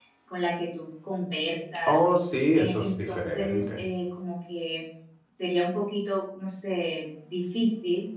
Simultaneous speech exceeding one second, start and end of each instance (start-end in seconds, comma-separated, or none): 2.6-3.8